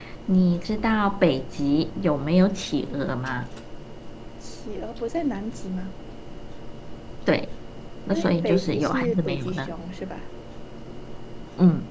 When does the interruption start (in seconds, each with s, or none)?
8.1 s